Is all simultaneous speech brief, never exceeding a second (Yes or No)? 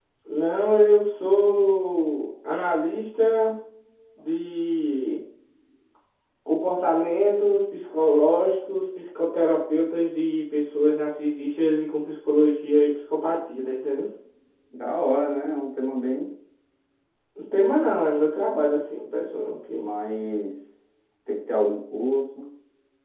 Yes